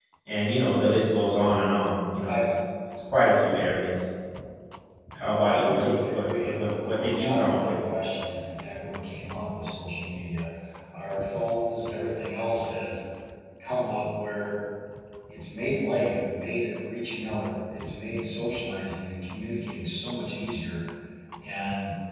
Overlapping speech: Yes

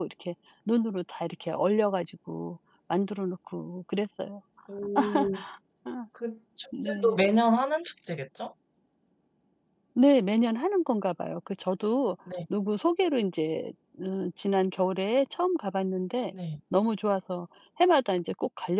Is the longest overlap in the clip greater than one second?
No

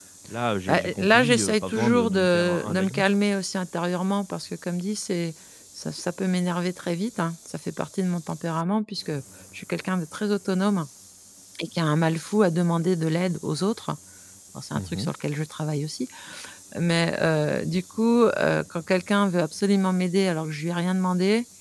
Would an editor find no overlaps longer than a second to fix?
No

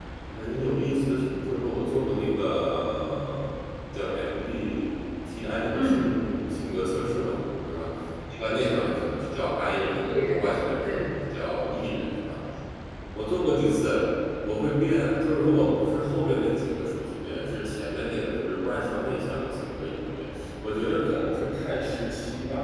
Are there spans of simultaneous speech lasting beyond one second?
No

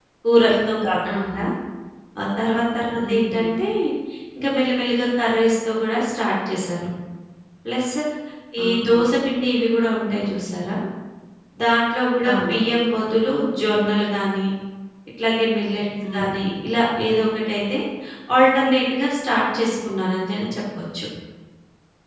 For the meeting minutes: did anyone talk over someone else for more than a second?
No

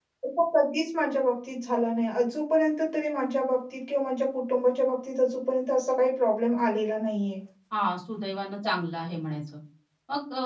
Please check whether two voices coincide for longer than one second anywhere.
No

